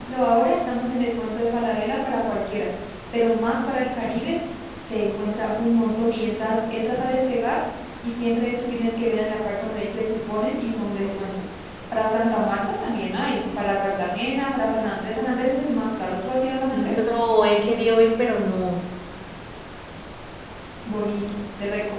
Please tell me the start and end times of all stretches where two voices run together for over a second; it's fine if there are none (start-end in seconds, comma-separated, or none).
none